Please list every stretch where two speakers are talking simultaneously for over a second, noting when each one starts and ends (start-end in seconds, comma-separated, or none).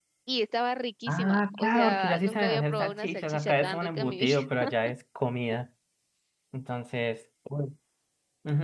1.1-4.3